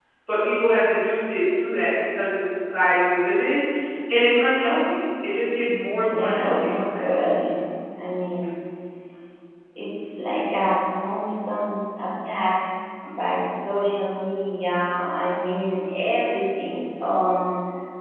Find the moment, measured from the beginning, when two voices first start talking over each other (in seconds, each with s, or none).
5.7 s